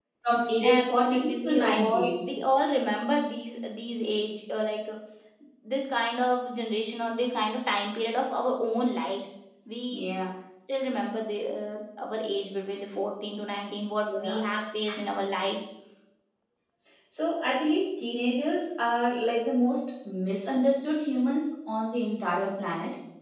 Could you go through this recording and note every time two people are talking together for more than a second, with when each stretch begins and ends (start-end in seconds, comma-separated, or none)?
0.6-2.1